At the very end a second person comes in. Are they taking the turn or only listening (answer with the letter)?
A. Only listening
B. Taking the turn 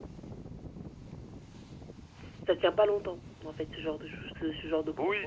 B